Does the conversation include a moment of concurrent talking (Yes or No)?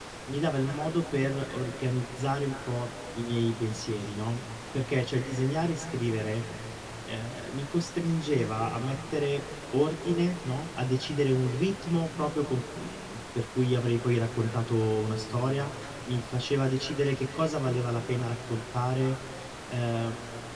No